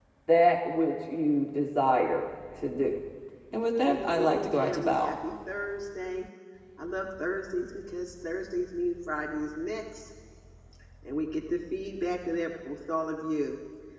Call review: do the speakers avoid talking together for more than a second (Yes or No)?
No